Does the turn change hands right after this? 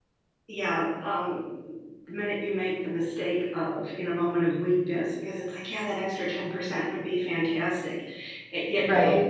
No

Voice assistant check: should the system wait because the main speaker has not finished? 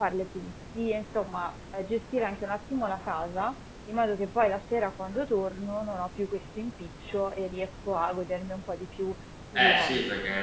No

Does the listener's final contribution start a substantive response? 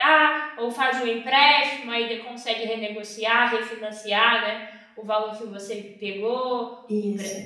No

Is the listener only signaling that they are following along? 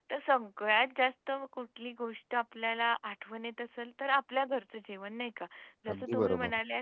Yes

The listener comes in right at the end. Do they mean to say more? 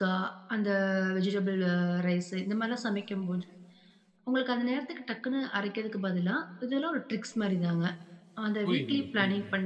Yes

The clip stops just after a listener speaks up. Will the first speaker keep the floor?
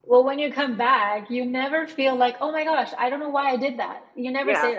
No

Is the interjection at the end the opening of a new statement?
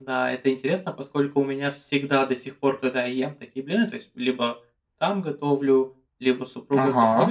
No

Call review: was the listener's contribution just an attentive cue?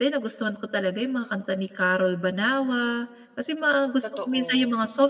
Yes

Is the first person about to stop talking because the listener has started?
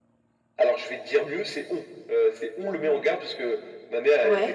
No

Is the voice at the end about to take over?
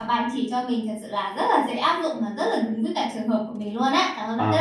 Yes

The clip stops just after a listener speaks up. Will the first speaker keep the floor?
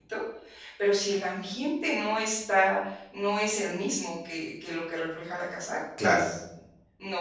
Yes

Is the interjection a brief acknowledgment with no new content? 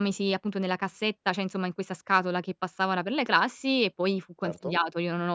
Yes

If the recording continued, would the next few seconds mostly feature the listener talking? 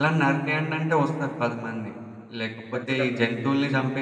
No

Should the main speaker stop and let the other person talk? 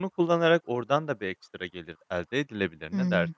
Yes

